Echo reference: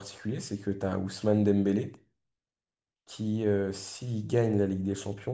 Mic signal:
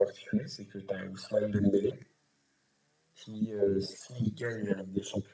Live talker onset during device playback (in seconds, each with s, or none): none